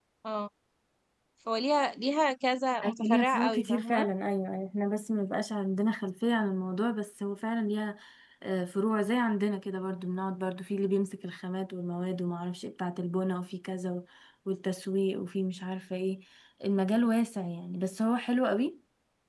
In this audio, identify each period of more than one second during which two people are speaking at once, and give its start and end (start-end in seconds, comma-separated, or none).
2.8-4.1